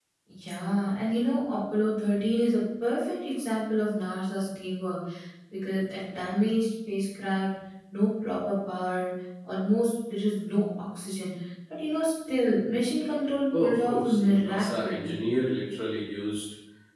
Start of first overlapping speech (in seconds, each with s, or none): 13.5 s